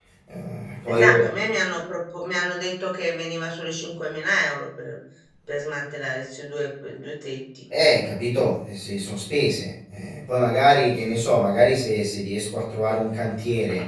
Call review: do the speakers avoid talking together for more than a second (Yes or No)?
Yes